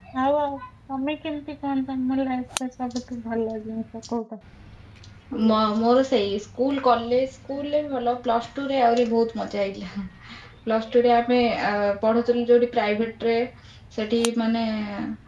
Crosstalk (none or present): none